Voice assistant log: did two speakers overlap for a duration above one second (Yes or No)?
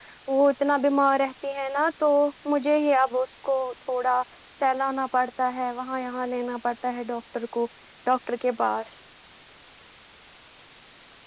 No